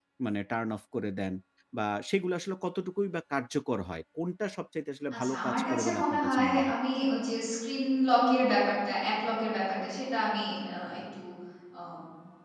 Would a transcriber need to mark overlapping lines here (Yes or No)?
Yes